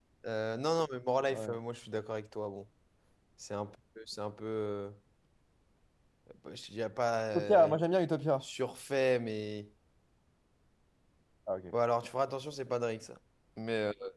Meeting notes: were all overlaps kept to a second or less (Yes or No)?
Yes